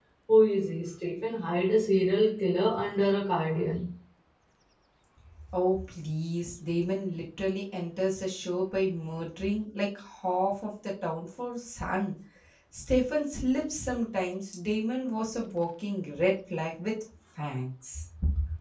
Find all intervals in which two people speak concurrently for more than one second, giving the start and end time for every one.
none

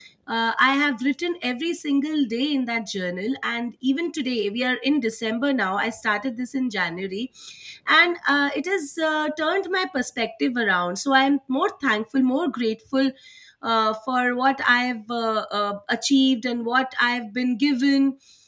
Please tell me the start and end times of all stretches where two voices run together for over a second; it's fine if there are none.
none

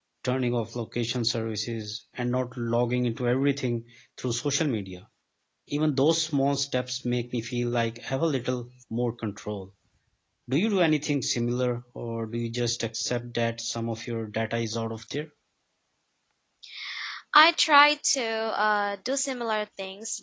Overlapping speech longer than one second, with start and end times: none

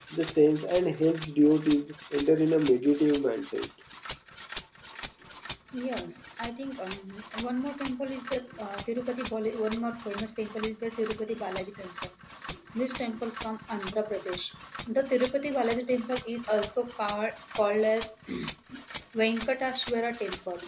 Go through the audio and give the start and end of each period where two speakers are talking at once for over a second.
none

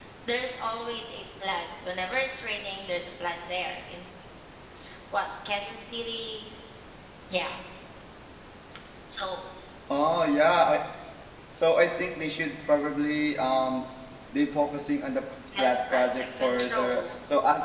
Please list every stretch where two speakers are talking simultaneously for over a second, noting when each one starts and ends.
15.6-17.0

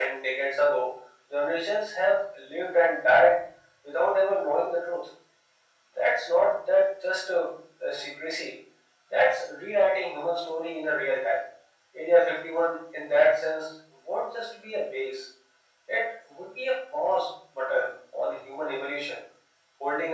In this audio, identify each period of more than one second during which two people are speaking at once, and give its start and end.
none

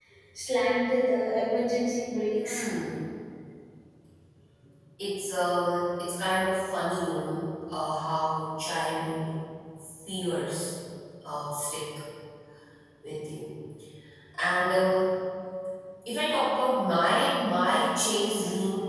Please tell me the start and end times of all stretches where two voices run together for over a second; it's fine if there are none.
none

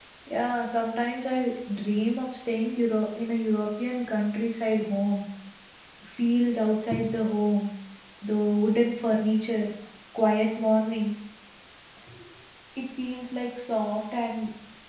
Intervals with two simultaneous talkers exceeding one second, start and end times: none

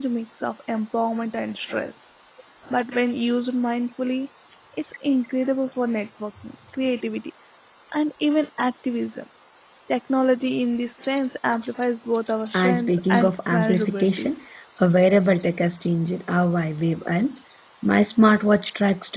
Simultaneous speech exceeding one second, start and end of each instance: 12.5-14.4

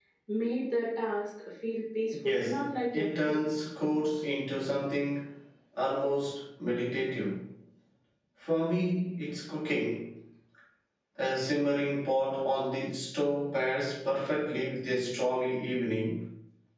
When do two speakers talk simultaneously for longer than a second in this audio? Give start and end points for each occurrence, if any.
2.2-3.4

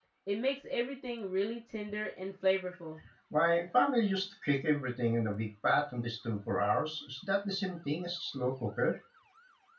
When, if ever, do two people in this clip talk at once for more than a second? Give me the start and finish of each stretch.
none

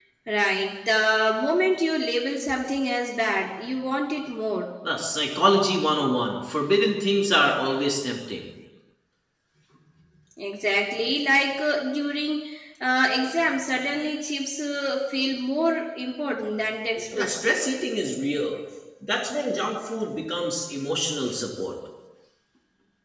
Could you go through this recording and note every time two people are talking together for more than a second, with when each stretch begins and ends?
none

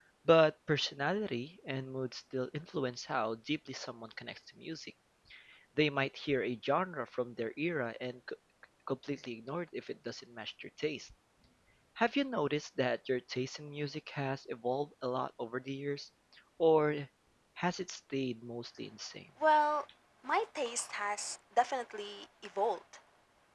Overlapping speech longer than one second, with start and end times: none

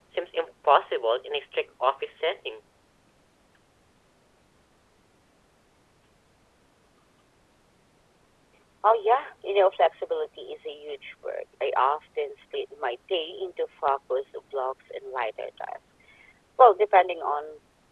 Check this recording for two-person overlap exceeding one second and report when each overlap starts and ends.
none

